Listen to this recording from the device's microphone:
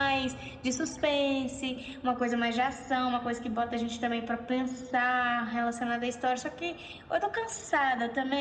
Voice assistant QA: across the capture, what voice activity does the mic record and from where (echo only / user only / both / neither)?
echo only